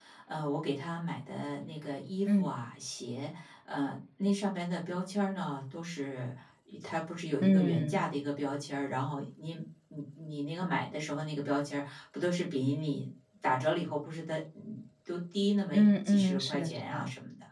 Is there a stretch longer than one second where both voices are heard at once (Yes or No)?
Yes